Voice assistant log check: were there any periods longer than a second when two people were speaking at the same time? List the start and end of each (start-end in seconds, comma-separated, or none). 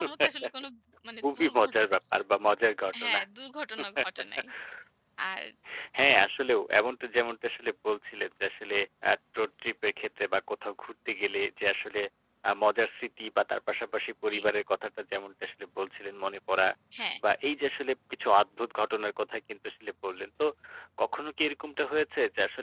none